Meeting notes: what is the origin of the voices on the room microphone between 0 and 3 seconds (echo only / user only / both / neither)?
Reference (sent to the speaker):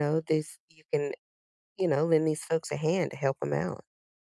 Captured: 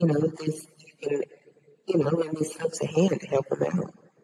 echo only